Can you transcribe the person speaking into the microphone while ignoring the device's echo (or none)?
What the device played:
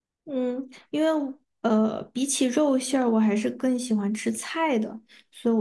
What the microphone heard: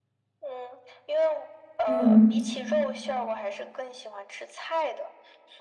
嗯，